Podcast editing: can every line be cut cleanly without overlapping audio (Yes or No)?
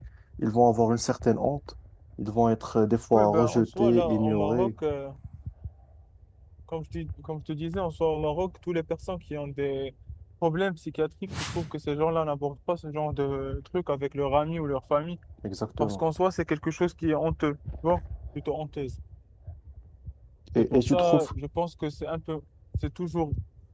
No